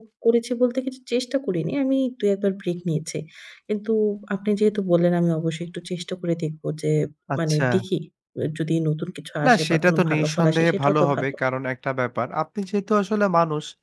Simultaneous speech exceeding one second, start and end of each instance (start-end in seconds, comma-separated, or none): 9.4-11.2